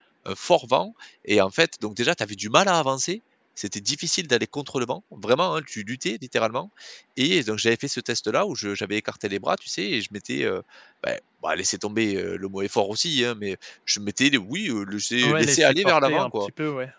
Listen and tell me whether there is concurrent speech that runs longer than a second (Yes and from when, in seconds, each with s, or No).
Yes, from 15.2 s